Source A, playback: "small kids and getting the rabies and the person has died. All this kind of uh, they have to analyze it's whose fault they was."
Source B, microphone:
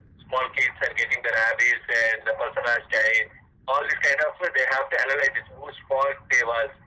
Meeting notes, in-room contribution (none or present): none